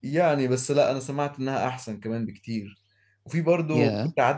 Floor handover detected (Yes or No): No